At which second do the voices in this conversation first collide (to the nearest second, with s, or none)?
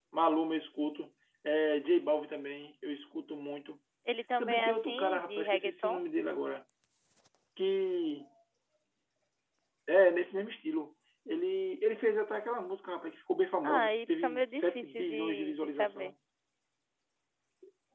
4 s